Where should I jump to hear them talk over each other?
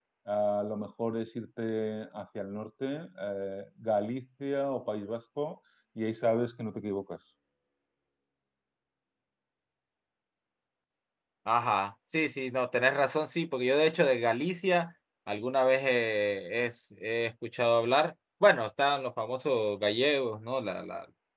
none

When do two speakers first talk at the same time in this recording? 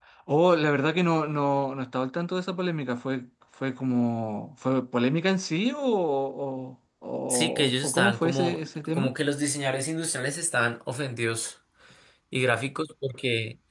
7 s

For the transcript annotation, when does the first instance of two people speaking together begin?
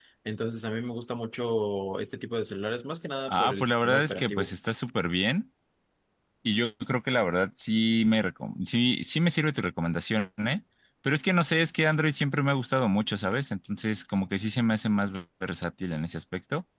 3 s

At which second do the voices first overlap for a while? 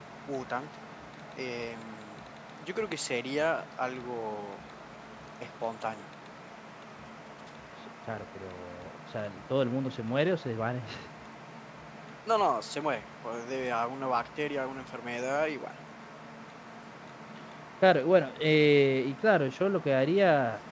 none

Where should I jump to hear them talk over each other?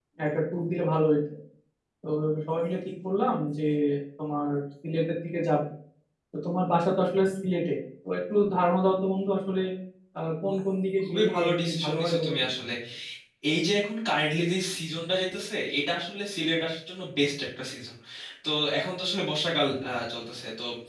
11 s

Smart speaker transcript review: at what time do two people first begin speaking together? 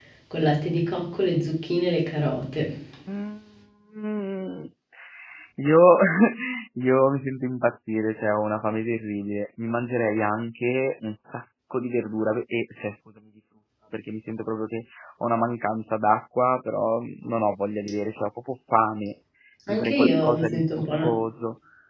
20 s

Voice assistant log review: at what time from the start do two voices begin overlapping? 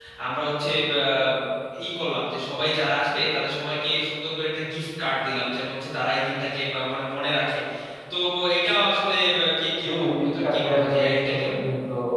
10 s

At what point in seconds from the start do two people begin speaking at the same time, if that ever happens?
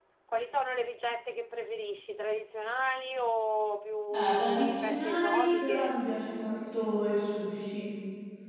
4 s

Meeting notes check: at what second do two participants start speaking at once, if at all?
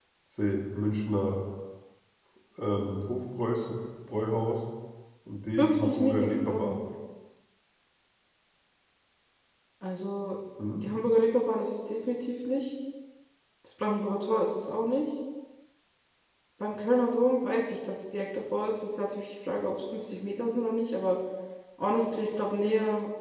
6 s

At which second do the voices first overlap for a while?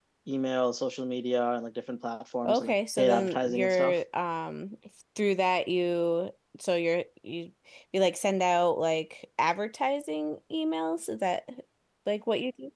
2 s

